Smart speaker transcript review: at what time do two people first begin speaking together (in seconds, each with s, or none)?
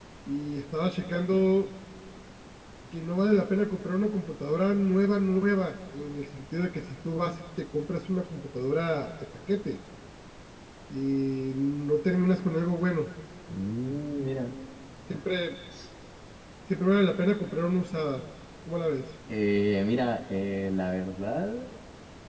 none